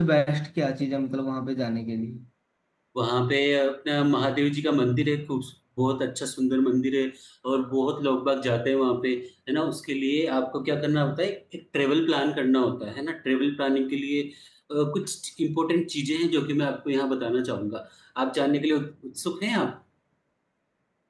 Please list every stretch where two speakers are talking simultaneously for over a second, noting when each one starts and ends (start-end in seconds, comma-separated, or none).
none